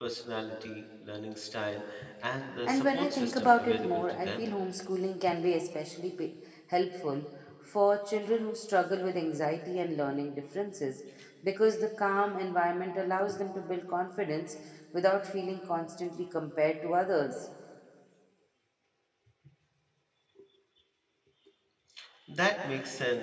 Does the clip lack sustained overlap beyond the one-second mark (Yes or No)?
No